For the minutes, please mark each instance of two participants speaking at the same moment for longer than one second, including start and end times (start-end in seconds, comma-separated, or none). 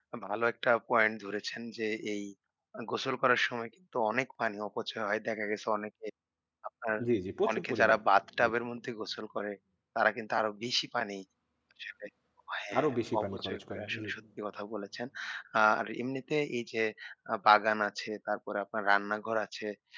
12.8-14.1